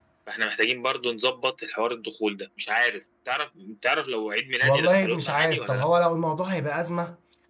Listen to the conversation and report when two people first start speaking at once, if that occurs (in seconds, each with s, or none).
4.6 s